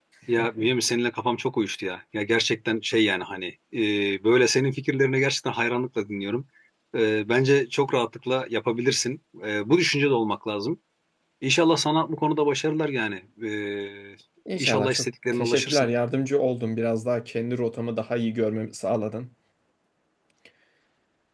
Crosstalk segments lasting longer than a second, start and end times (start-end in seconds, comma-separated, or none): 14.6-15.9